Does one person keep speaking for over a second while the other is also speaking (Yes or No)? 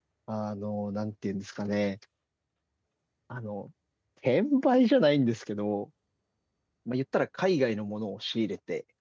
No